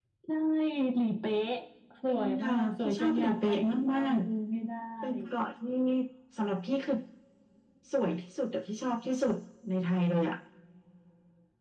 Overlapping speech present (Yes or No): Yes